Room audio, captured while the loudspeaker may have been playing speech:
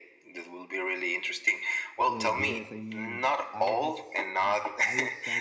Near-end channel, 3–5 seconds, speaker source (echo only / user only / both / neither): both